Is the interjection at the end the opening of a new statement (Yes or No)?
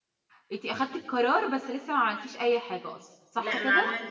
Yes